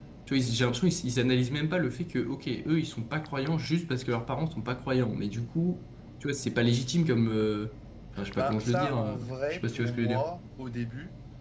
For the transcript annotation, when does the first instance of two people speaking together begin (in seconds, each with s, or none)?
8.2 s